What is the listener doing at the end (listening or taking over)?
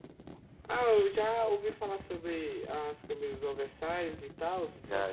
taking over